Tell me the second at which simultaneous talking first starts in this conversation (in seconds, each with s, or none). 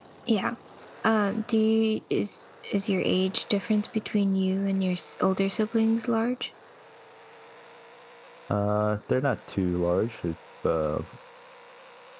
none